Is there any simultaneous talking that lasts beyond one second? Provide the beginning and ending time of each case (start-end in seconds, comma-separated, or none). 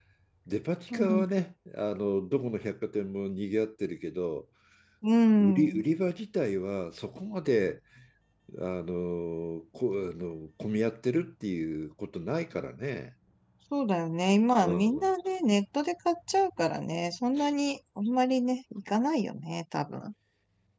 none